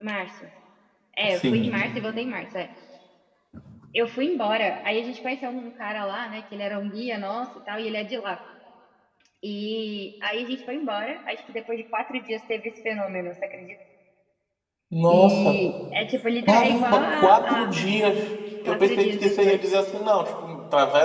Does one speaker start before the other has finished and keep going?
Yes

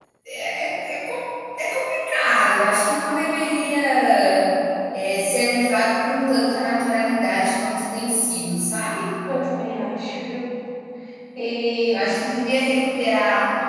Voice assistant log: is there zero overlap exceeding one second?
Yes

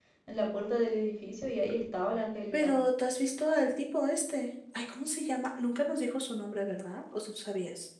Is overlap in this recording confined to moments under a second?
Yes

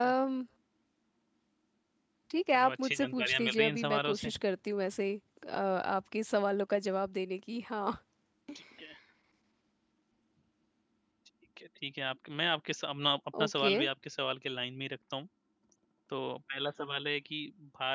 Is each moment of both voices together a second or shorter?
No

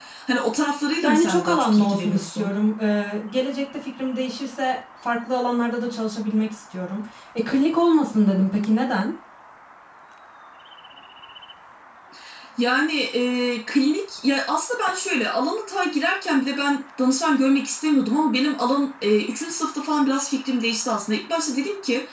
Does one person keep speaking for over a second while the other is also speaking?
Yes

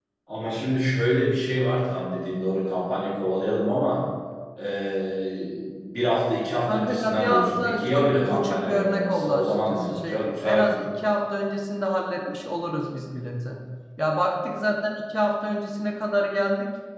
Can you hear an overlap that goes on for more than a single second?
Yes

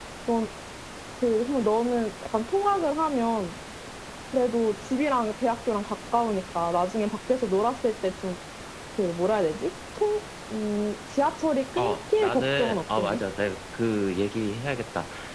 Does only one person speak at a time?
No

